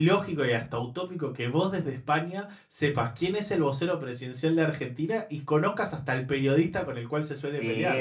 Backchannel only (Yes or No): No